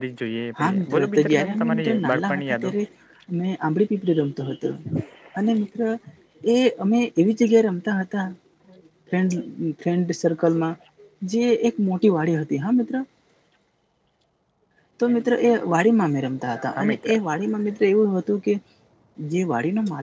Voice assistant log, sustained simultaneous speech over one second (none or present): present